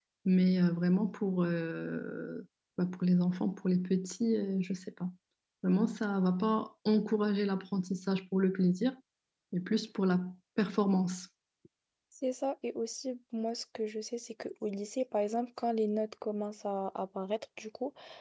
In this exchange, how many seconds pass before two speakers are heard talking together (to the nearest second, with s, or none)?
none